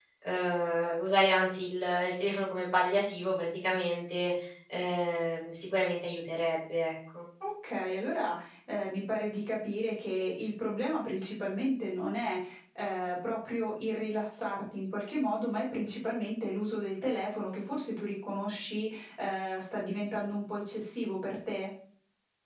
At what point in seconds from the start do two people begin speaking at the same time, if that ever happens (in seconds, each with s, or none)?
none